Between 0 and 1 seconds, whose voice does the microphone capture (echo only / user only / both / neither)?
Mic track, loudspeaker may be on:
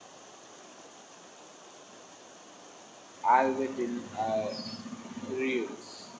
neither